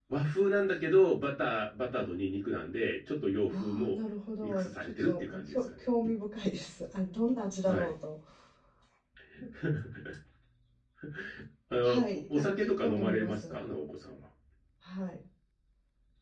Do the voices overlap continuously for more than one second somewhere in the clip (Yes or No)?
Yes